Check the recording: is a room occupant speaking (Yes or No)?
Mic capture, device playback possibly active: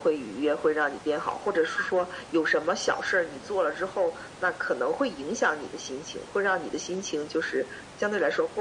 No